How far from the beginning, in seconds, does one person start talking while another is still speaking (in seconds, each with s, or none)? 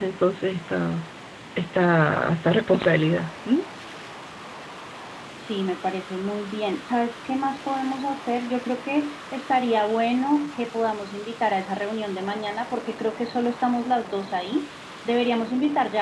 none